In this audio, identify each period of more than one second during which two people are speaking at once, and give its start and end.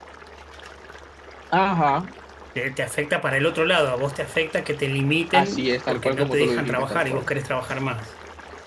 5.3-7.3

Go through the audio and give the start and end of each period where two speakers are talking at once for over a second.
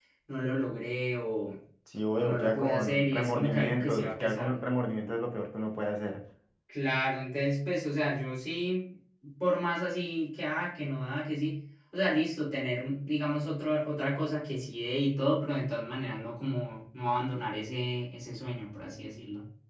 2.2-4.6

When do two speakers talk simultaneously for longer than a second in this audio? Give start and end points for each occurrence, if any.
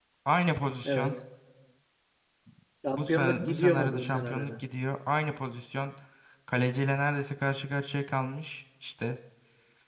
2.9-4.5

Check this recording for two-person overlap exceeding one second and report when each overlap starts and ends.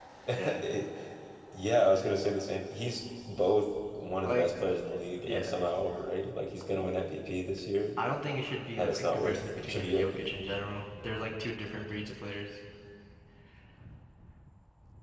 8.8-10.2

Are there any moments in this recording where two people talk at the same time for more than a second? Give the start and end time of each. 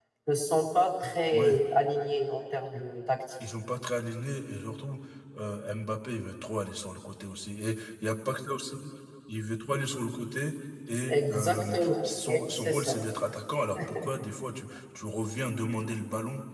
11.1-13.0

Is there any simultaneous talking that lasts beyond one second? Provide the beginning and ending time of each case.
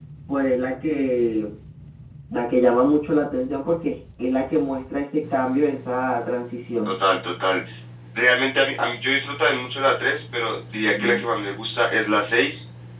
none

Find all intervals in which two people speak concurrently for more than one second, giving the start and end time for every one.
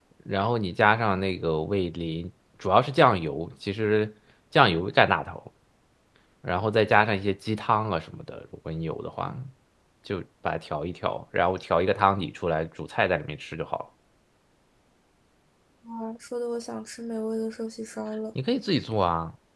none

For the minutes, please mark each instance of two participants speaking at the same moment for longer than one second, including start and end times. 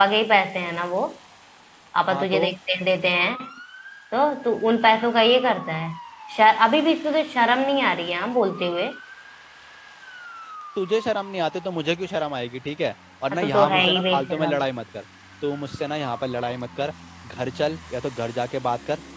13.3-14.6

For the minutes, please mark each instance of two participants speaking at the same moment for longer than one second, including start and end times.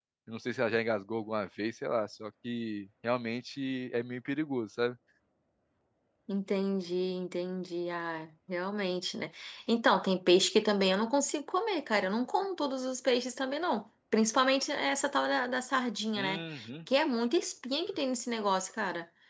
none

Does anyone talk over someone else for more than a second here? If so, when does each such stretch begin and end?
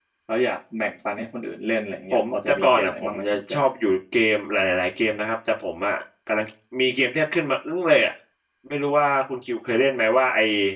2.1-3.6

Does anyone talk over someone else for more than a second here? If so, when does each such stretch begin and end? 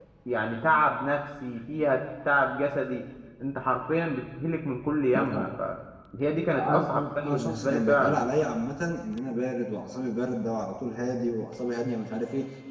6.5-8.2

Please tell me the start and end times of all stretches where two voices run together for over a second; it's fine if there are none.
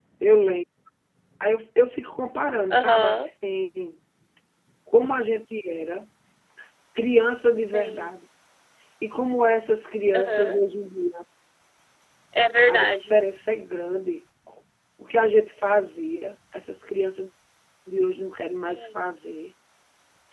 none

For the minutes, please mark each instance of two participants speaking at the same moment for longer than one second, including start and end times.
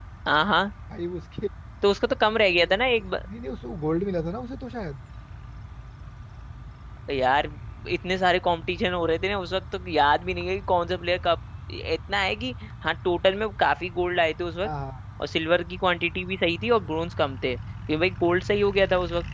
none

